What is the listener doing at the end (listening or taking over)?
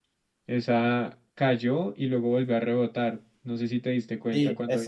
taking over